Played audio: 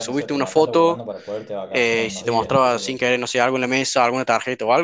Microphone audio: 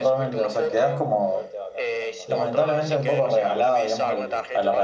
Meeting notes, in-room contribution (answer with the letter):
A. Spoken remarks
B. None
A